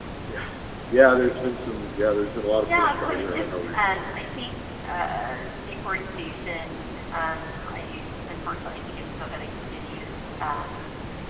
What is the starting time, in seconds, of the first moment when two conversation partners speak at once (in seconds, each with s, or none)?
2.7 s